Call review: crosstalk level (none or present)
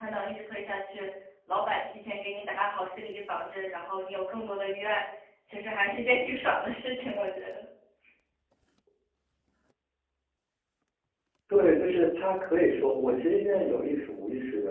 none